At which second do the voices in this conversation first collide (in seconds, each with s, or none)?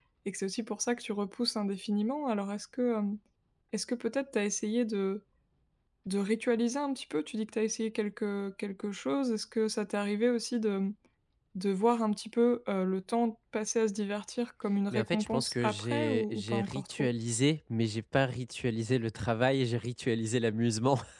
14.9 s